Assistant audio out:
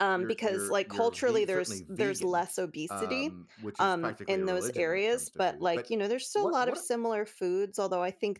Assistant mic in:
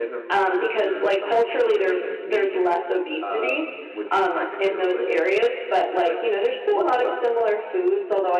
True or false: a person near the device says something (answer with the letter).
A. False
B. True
A